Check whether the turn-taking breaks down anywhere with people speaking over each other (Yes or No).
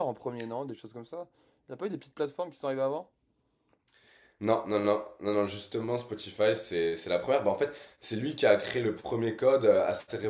No